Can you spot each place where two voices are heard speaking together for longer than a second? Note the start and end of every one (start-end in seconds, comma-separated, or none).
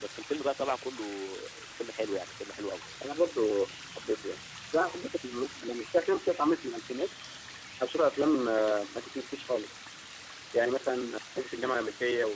none